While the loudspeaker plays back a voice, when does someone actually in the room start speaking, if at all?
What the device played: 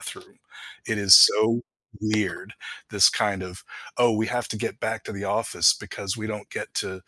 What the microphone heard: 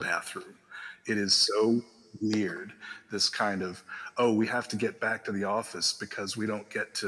none

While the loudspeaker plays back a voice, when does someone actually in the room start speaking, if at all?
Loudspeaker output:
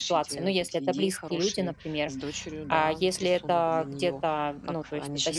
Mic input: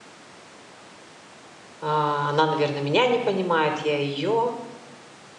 1.8 s

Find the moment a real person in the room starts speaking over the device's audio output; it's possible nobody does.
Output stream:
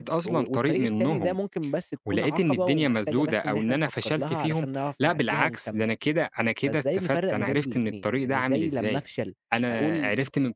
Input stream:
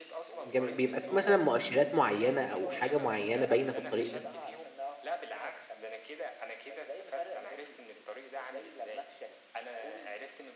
0.5 s

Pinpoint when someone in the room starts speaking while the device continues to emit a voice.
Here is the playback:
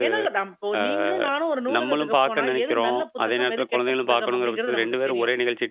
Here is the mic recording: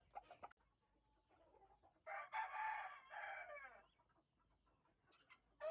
none

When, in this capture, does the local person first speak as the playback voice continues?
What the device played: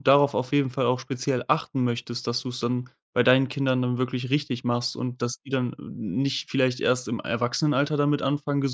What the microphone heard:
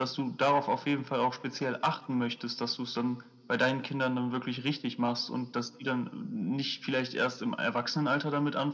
none

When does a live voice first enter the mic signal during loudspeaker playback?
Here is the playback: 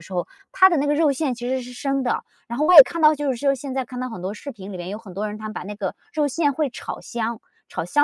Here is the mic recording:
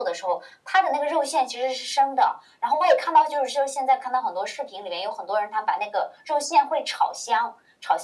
none

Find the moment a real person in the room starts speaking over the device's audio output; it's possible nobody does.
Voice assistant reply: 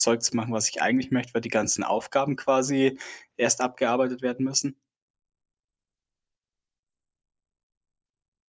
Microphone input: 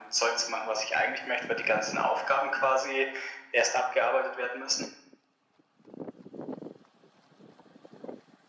none

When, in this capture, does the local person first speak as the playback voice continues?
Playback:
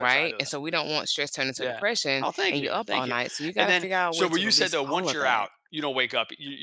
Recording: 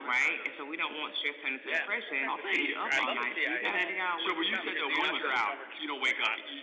1.7 s

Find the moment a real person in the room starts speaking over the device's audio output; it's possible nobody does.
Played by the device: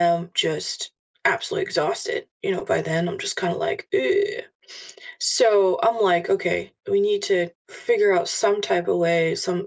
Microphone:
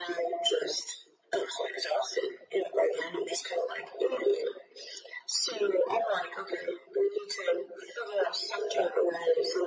none

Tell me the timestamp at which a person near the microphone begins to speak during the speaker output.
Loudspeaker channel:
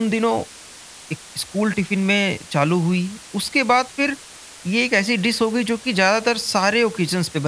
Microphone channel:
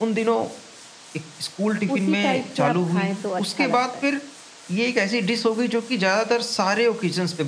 2.0 s

